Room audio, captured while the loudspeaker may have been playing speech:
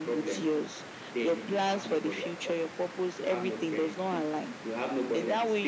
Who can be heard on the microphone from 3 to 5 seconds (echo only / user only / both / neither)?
echo only